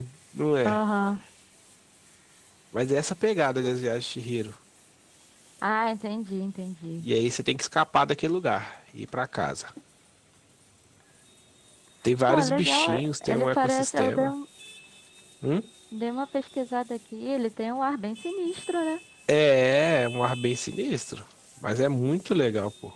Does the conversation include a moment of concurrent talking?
Yes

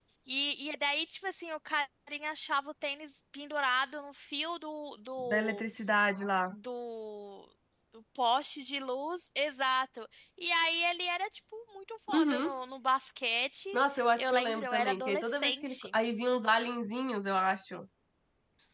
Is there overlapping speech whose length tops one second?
Yes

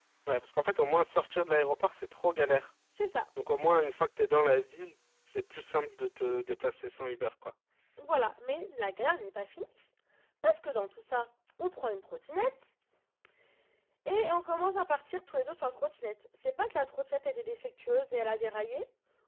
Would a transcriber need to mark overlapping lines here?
No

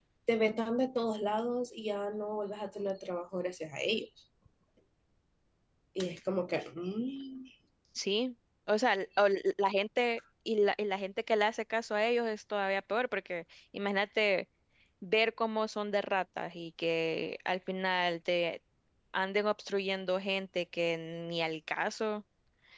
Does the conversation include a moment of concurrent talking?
No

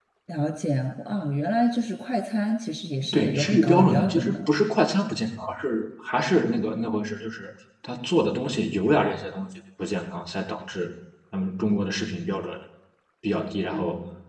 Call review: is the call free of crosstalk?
No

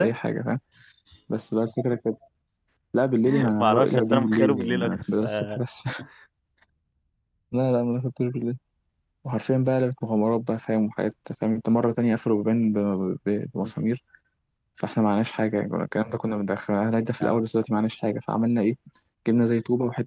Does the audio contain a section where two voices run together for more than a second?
Yes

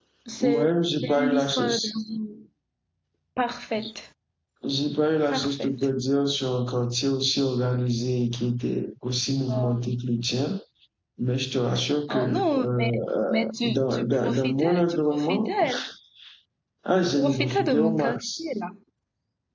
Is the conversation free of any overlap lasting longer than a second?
No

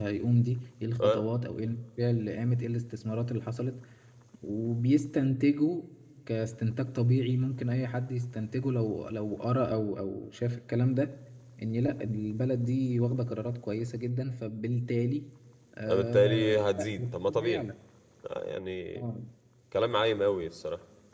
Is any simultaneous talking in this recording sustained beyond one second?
Yes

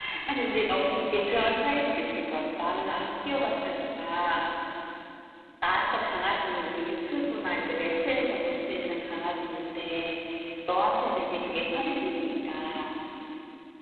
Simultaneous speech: No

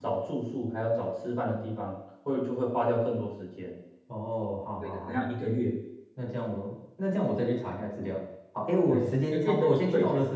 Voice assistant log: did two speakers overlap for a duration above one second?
Yes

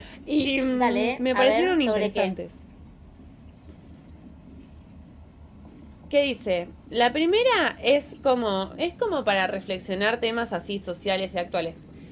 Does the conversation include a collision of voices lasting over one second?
Yes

